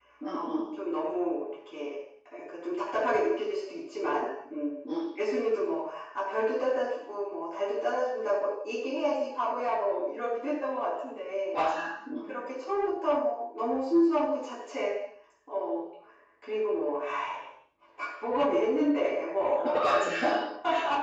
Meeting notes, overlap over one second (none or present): none